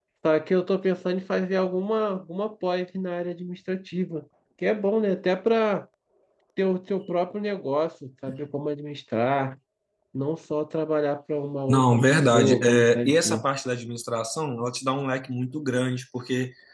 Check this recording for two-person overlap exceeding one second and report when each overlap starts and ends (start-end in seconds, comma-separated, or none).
11.7-13.4